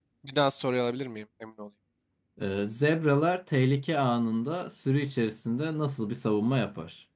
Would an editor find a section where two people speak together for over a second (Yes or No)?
No